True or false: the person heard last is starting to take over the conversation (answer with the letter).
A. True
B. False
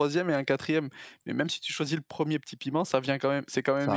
B